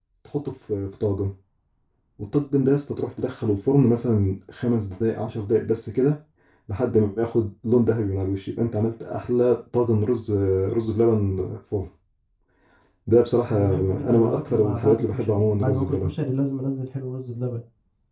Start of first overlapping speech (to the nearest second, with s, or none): 13 s